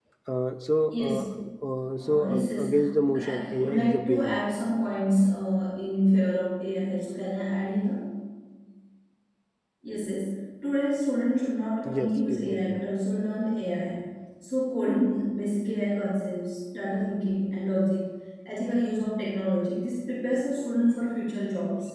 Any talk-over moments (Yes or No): Yes